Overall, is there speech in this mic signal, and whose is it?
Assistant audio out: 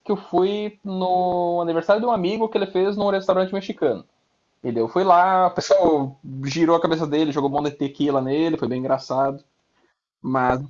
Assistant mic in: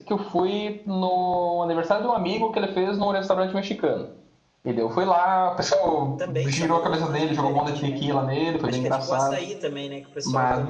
both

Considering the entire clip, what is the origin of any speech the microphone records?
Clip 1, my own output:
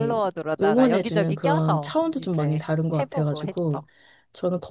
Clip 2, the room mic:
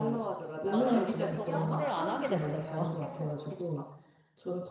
both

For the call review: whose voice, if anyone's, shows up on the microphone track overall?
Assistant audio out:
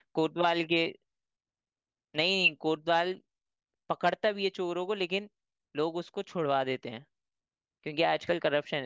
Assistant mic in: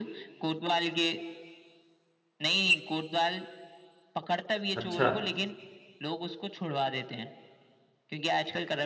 both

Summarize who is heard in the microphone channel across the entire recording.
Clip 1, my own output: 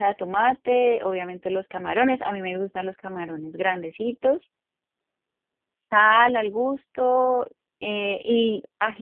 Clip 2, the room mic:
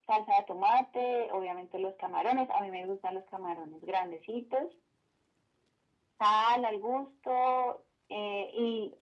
echo only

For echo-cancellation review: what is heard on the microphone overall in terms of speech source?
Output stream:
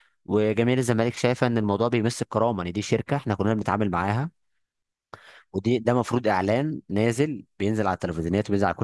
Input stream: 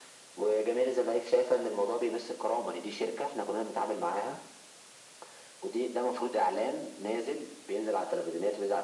echo only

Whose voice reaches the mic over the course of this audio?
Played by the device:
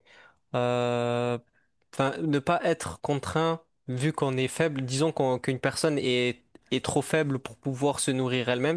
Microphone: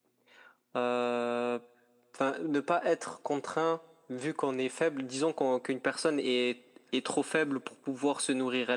echo only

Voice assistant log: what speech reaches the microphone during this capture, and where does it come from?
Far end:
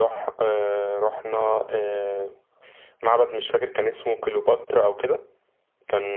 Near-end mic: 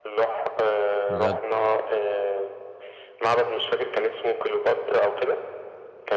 both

